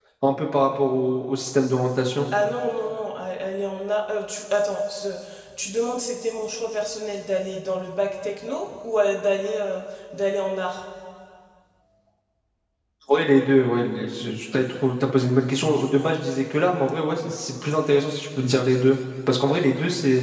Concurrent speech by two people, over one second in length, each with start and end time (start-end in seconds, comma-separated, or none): none